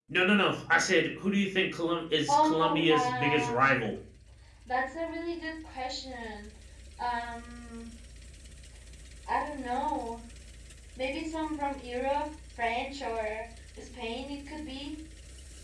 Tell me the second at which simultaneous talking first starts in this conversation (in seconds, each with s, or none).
2.3 s